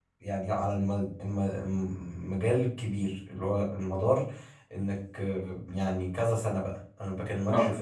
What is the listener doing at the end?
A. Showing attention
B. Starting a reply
A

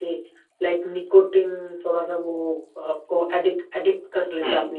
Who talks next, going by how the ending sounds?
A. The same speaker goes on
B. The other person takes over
B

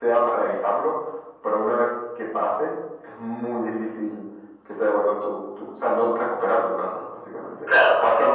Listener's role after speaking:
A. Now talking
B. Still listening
A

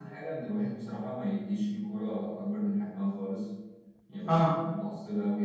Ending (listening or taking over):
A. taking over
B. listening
B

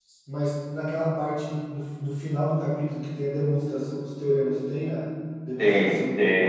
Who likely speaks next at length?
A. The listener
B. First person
A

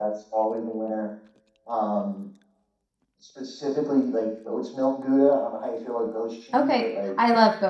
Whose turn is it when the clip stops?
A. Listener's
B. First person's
A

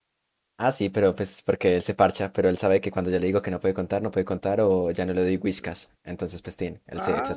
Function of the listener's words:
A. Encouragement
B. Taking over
B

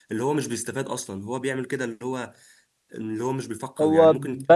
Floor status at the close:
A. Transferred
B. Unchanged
A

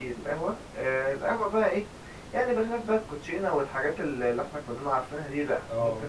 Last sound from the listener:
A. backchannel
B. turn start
A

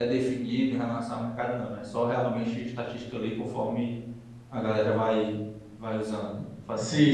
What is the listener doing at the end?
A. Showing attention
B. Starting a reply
B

